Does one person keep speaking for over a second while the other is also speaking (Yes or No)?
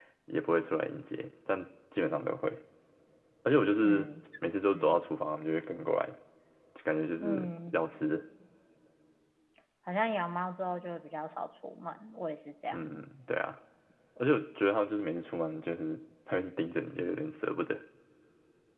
No